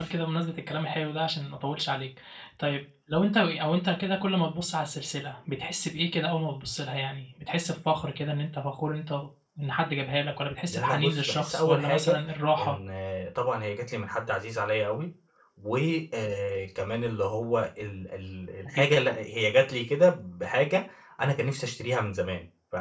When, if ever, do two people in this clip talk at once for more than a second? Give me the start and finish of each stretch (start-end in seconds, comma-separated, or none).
10.7-12.2